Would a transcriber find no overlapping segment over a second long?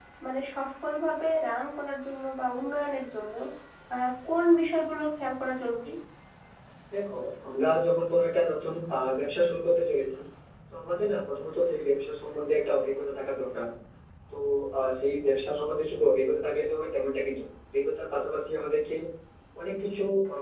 Yes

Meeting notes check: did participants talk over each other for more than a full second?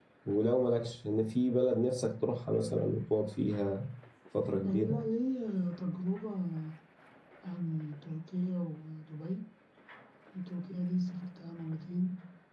No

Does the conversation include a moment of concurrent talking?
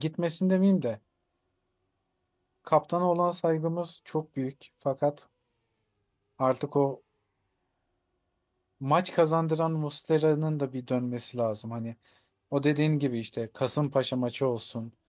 No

